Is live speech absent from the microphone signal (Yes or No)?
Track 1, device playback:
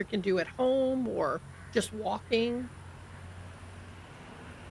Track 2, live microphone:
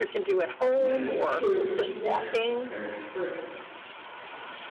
No